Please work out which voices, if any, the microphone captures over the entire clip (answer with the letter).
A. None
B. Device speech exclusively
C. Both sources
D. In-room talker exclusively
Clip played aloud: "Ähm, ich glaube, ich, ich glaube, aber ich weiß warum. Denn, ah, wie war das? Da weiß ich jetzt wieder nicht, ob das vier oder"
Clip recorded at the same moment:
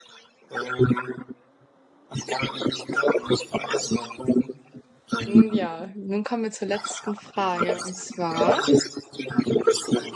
C